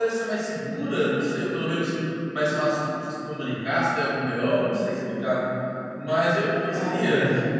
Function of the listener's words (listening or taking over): taking over